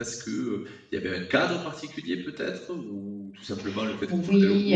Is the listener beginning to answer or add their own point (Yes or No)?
Yes